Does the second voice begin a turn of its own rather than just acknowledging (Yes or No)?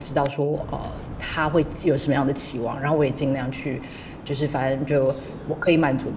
No